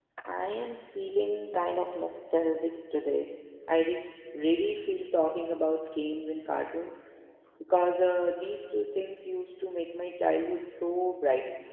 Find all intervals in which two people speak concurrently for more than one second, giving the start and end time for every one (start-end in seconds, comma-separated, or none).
none